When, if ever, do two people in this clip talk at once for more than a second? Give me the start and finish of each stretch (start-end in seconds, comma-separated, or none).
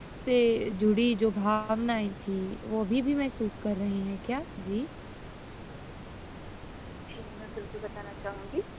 none